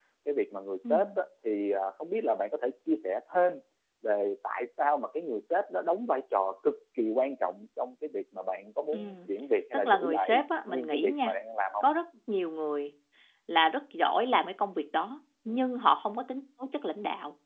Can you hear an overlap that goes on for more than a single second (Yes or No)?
Yes